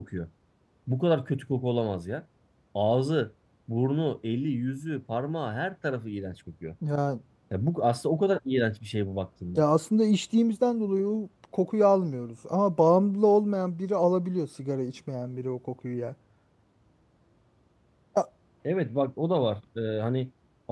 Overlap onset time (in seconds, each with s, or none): none